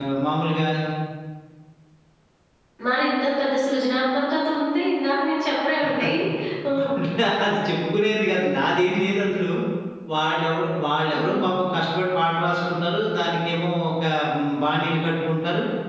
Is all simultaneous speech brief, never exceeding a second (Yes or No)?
Yes